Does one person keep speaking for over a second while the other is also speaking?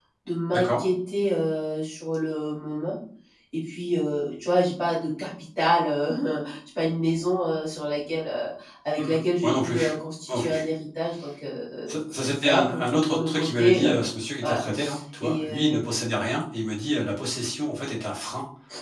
Yes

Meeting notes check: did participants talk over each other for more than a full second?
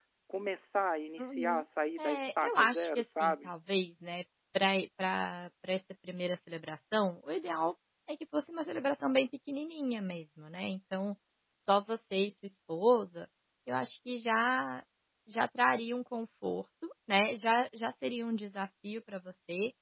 Yes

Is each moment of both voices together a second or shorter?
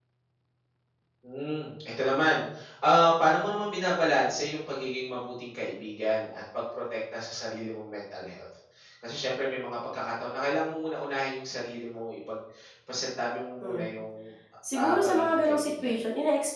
No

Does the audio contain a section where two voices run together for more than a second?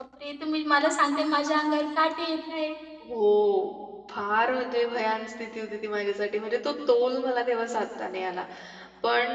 No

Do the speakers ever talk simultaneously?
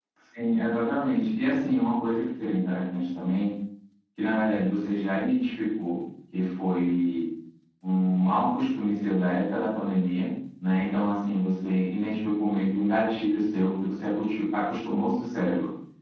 No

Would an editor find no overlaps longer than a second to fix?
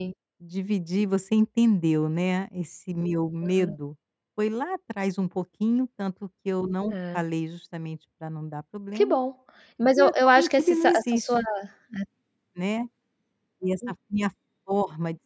No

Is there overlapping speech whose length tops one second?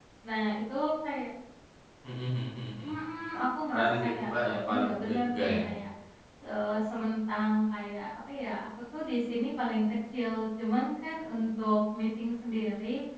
Yes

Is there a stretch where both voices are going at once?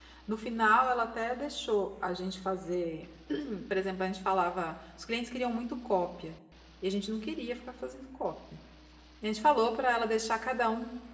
No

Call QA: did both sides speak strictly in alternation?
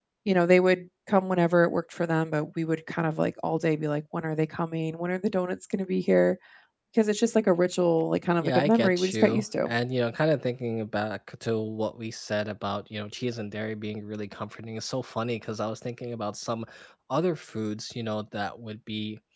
No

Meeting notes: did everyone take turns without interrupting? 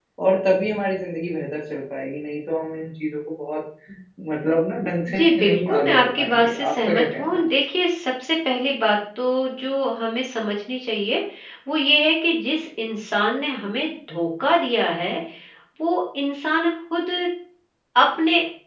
No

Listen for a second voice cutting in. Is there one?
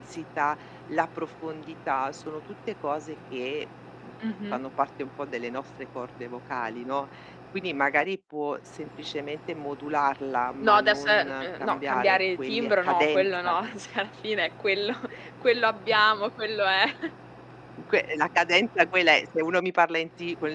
Yes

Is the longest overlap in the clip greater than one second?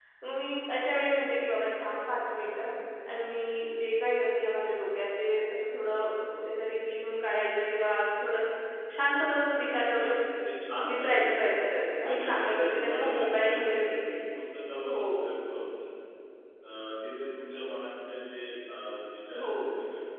Yes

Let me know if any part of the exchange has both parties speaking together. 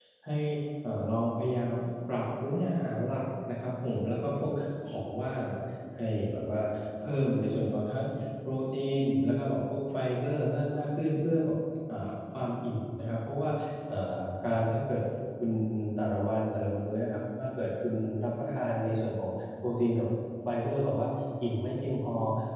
No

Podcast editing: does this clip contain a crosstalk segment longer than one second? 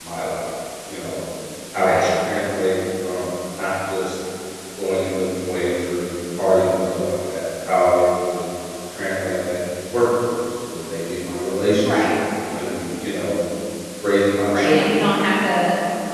No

